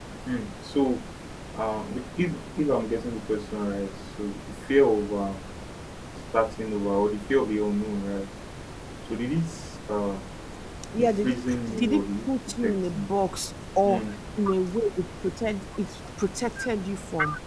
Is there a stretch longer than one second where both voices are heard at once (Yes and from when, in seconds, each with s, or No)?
Yes, from 11.0 s